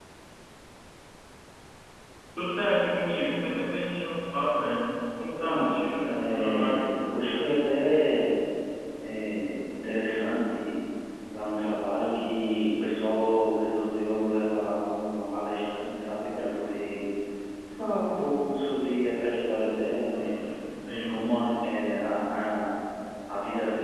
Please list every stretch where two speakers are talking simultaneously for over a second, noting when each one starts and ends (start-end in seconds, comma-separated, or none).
5.2-7.0